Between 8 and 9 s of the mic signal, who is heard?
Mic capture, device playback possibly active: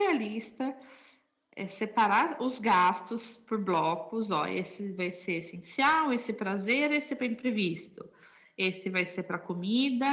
user only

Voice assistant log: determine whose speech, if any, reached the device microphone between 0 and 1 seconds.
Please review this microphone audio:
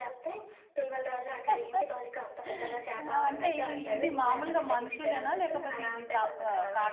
echo only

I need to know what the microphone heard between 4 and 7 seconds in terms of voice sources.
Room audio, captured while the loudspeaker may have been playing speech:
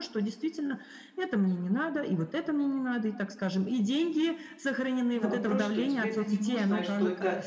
both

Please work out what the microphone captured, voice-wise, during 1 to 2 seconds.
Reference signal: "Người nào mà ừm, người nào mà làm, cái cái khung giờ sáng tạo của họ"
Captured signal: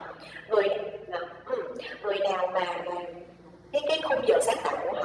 echo only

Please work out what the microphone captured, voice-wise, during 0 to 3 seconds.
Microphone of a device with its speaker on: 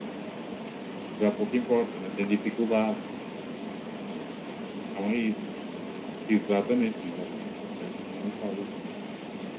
echo only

